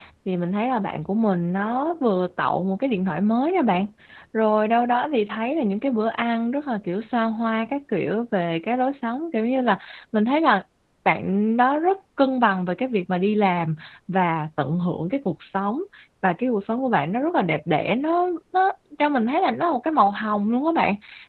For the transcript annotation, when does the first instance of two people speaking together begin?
none

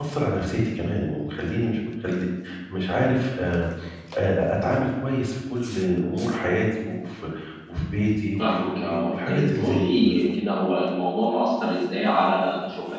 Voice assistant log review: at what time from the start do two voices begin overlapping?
8.4 s

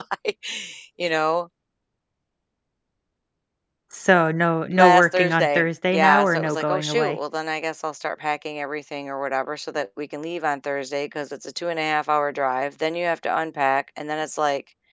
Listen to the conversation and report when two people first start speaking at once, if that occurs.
4.7 s

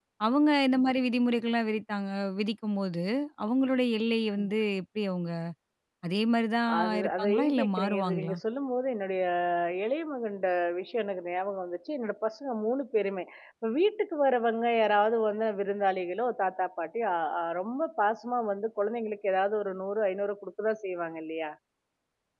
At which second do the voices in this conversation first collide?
6.8 s

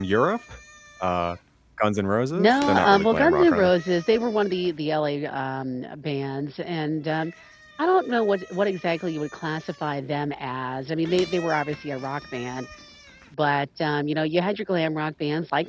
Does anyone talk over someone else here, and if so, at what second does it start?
2.4 s

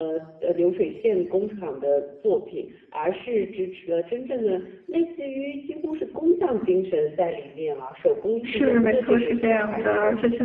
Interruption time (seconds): 8.4 s

